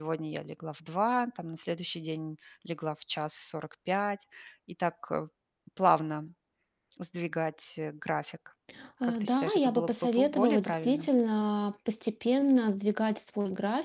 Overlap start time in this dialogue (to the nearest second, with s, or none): 9 s